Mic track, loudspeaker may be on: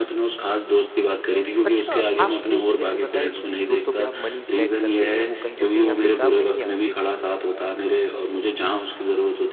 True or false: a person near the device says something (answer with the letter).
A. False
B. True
B